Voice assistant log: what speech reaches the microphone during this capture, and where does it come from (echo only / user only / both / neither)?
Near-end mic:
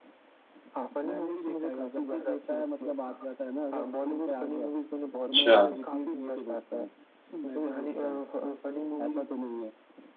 both